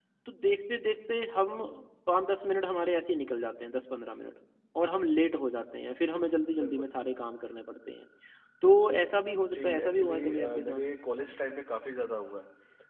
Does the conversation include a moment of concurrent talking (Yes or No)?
Yes